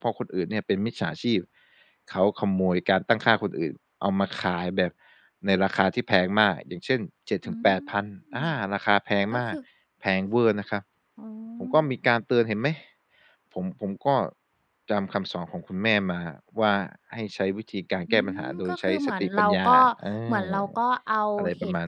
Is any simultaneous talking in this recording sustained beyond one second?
Yes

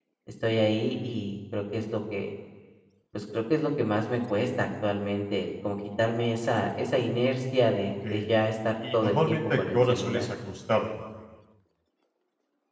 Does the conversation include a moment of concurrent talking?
Yes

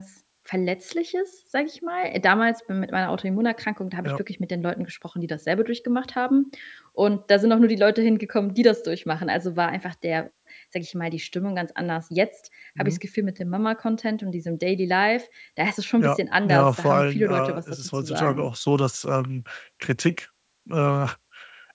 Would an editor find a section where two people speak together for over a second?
Yes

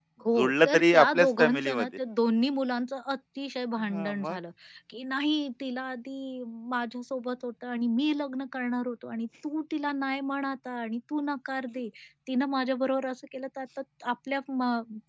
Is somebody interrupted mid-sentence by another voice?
Yes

